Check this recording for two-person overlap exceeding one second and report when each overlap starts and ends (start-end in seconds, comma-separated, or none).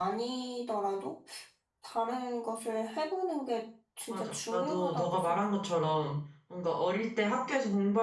4.1-5.4